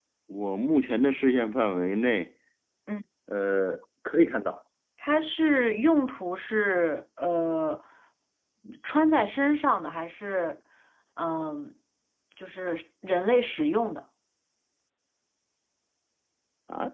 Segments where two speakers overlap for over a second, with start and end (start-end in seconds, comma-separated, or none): none